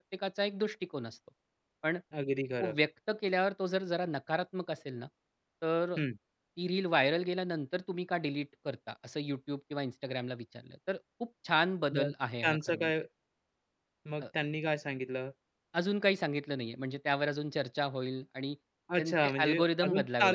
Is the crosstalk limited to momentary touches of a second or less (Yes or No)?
No